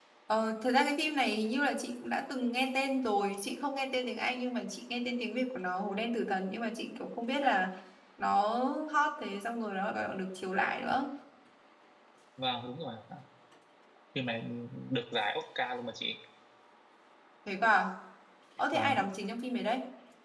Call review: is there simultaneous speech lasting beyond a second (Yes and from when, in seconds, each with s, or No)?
No